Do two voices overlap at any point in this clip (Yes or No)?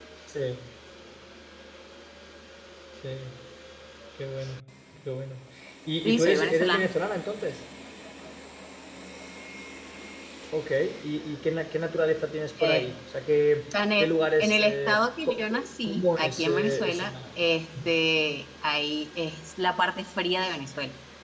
Yes